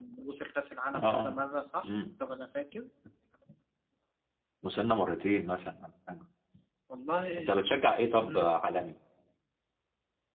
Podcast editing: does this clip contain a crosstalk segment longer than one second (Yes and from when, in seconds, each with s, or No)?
No